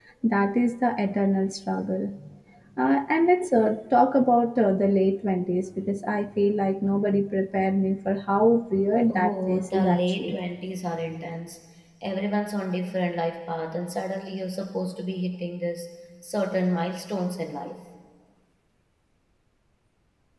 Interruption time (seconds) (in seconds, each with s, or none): 9.1 s